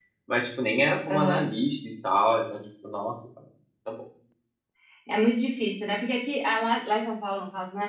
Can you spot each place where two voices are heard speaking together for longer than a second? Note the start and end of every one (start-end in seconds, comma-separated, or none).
none